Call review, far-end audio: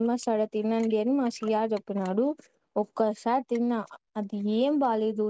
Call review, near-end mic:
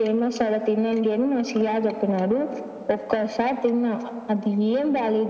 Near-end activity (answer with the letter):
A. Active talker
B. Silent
B